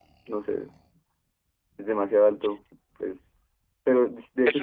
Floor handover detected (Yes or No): Yes